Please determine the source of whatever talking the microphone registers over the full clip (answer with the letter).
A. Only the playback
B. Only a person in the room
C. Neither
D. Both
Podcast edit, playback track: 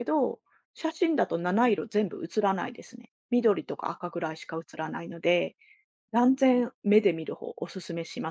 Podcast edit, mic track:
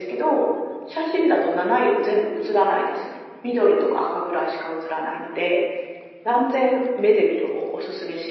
A